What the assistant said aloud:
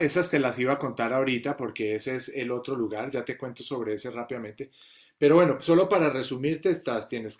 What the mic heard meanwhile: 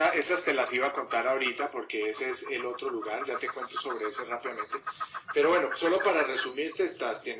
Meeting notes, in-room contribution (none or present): none